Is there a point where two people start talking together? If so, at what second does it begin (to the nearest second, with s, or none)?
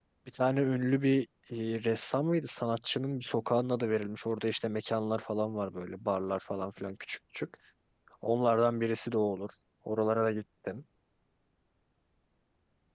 none